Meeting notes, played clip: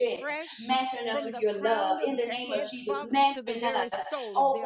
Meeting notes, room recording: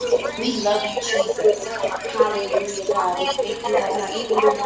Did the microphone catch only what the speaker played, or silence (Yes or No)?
No